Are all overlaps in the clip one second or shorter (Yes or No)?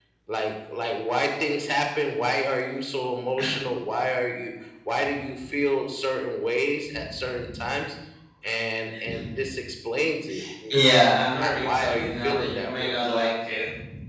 No